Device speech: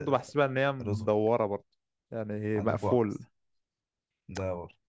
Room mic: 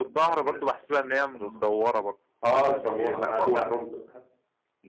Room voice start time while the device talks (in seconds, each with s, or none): 2.4 s